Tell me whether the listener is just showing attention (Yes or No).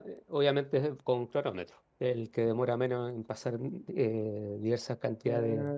No